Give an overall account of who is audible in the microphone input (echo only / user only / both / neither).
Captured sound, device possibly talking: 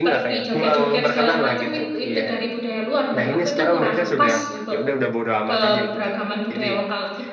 both